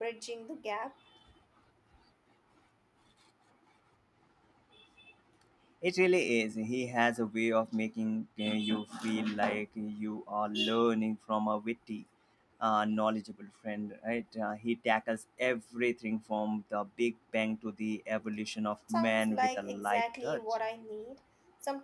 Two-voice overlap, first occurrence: 19 s

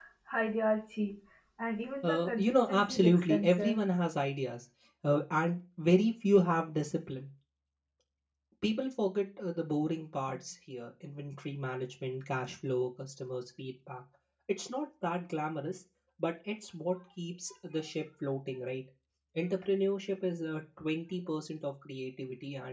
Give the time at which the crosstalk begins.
2 s

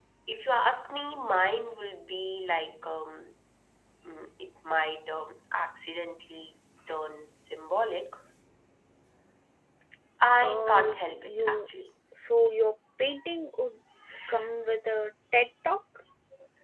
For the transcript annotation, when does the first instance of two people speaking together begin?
10 s

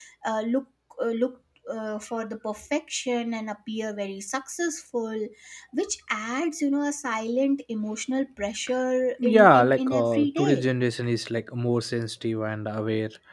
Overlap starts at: 9 s

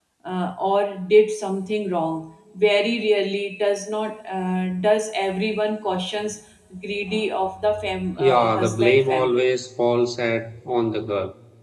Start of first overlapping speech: 8 s

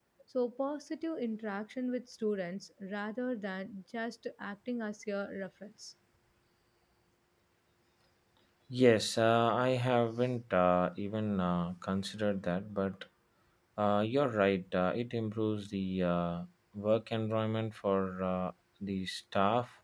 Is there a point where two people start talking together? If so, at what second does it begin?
none

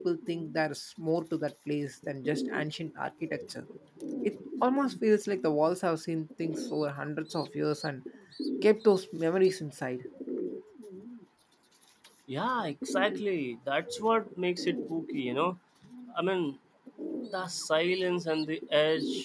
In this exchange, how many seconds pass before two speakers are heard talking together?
none

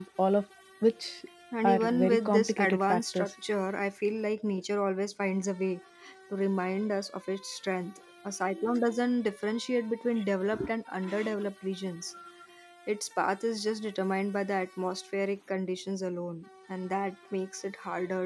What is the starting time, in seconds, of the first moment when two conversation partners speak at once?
2 s

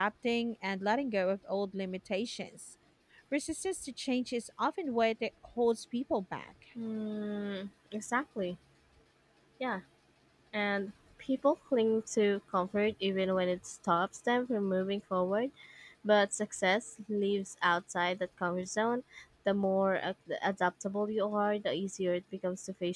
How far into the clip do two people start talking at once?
none

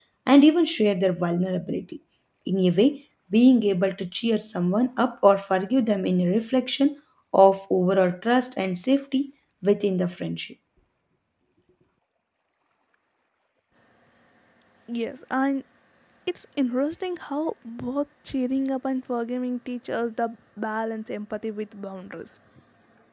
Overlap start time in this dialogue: none

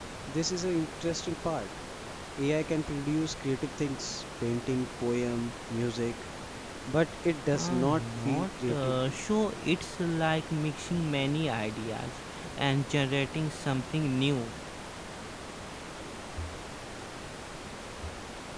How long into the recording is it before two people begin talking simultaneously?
8 s

